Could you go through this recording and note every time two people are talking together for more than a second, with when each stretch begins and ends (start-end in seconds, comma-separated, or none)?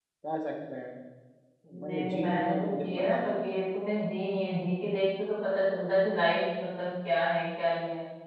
1.8-3.6